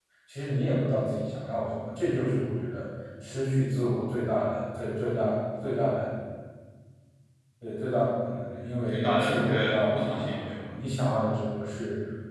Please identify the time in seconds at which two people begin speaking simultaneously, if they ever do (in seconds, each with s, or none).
8.9 s